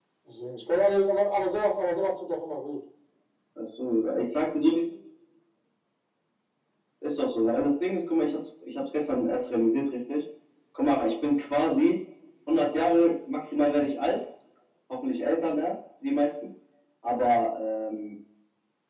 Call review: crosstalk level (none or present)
none